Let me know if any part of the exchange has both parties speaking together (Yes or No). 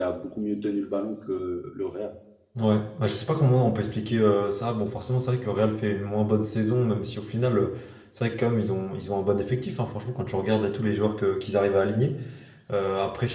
No